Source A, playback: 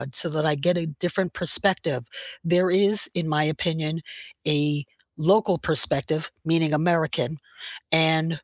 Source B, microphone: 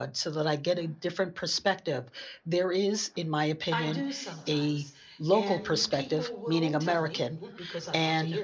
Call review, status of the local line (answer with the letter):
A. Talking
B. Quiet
A